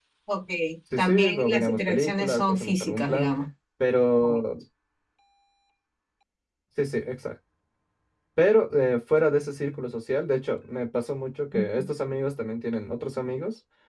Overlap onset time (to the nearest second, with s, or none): 1 s